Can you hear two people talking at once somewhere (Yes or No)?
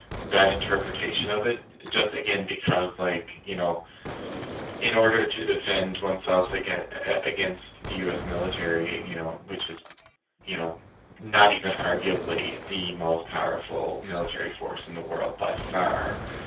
No